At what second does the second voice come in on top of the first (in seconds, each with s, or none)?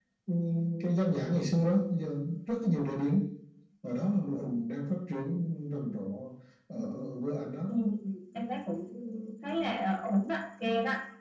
none